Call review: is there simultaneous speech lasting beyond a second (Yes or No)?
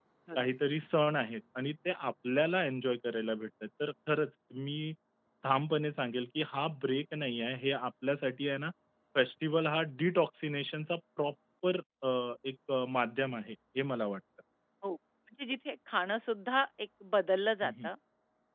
No